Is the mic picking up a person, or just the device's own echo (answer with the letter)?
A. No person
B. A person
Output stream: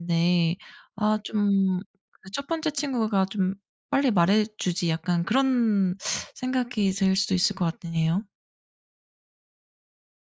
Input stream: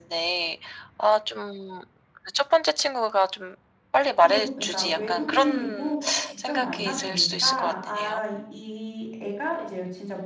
B